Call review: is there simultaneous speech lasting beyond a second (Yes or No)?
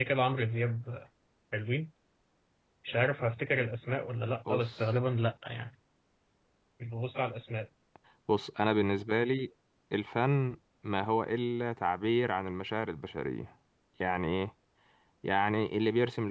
No